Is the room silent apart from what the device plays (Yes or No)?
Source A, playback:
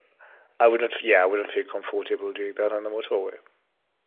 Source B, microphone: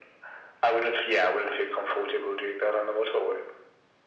Yes